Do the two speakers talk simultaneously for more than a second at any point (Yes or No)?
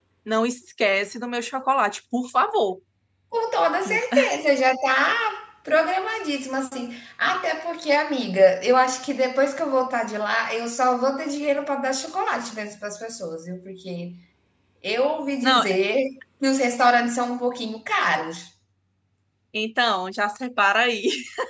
No